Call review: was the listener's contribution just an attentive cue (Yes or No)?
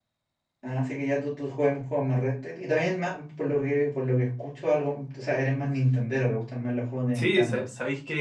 No